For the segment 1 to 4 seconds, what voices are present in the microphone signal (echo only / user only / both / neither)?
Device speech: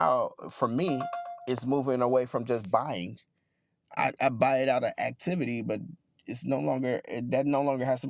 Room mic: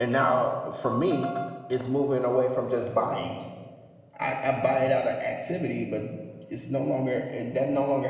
echo only